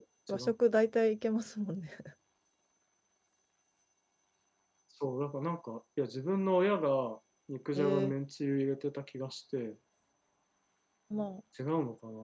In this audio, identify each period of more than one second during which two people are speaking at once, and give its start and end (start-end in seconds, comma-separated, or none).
none